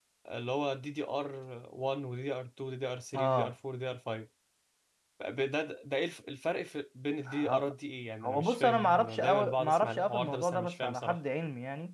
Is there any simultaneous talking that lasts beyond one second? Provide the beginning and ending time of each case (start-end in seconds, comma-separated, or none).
8.2-11.2